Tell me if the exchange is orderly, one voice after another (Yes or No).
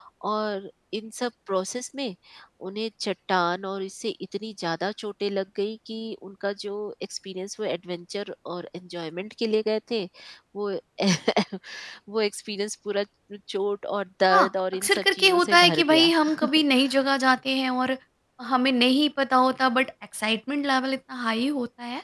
No